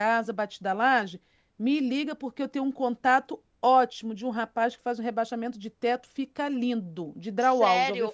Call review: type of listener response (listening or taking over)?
taking over